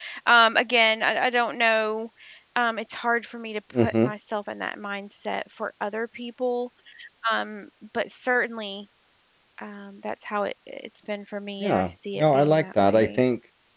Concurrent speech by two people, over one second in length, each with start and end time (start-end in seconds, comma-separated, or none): 11.6-13.2